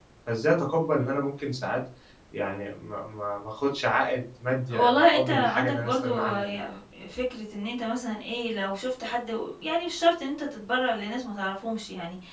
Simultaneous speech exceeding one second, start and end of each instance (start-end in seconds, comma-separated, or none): 4.7-6.5